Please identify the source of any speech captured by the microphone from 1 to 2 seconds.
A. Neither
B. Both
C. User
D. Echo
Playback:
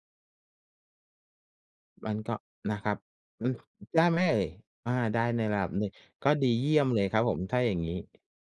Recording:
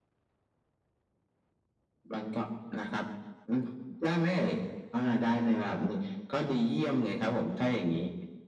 A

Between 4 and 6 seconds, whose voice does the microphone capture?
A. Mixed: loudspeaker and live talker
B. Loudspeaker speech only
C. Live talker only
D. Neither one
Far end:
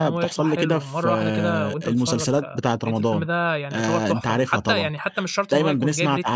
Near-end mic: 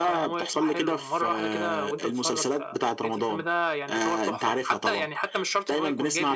B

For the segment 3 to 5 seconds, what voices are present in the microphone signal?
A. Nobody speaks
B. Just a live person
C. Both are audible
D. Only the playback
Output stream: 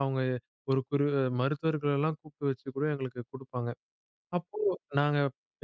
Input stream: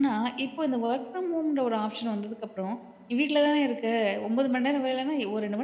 B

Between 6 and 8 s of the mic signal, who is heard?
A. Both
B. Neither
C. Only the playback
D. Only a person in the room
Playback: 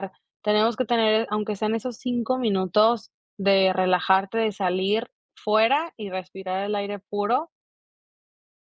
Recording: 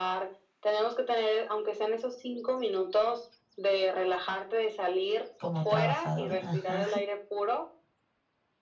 A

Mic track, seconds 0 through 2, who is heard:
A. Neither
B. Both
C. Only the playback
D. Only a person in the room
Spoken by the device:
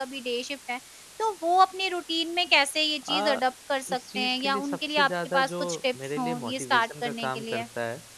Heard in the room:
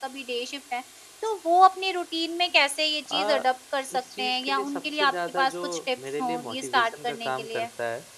C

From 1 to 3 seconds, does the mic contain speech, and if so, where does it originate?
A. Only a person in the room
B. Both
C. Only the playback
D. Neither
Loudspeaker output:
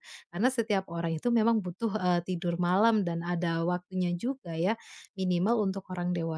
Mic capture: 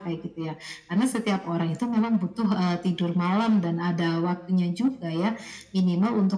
C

